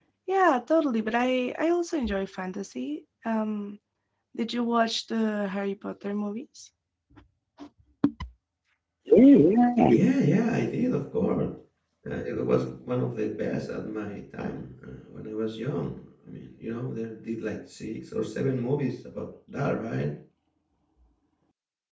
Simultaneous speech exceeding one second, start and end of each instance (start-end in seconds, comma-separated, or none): none